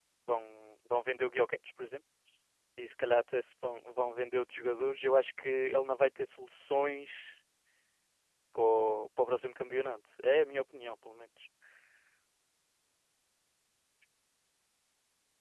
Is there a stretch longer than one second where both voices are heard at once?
No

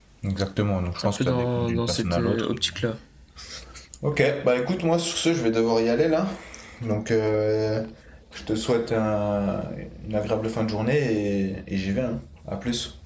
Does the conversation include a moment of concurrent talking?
Yes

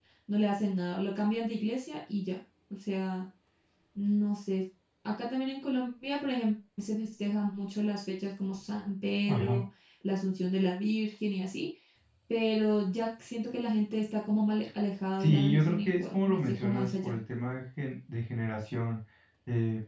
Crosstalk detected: Yes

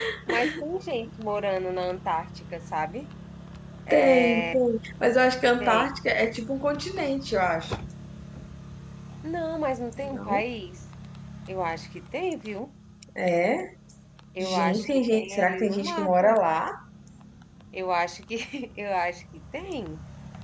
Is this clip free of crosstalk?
No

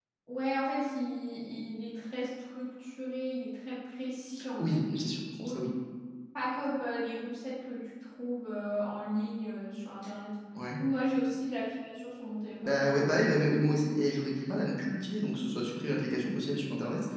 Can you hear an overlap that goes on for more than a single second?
No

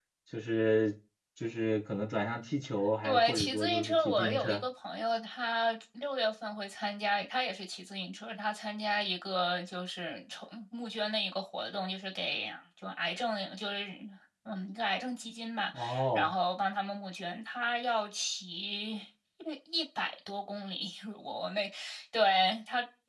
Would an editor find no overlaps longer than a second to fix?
No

